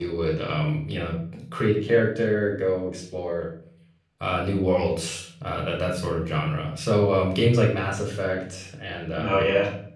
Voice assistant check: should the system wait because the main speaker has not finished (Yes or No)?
Yes